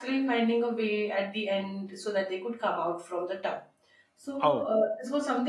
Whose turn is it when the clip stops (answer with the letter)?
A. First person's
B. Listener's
A